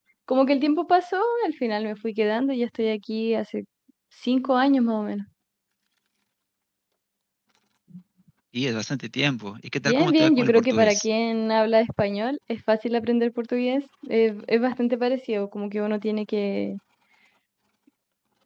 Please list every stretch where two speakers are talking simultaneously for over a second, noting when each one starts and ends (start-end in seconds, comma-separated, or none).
9.8-11.1